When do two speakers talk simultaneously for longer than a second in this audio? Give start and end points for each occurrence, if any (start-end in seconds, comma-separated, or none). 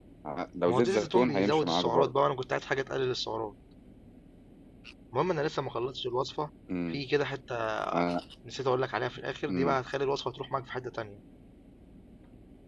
0.7-2.1